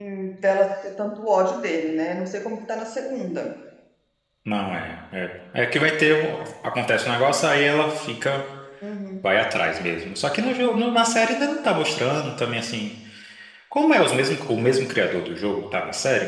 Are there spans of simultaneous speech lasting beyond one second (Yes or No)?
No